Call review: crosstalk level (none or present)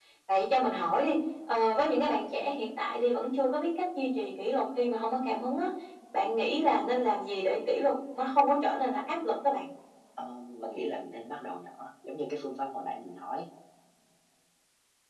none